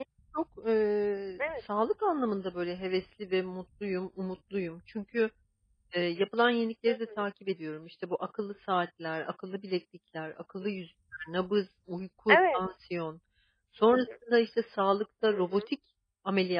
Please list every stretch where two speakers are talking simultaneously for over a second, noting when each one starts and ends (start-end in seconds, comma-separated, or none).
none